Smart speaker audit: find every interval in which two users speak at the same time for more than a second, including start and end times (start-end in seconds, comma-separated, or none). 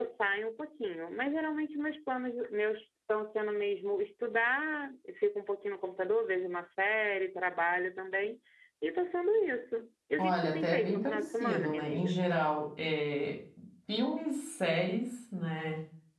10.2-12.2